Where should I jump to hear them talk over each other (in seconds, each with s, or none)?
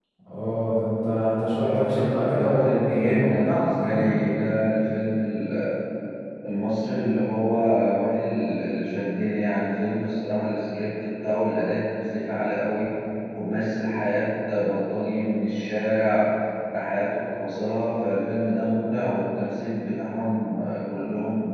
1.6 s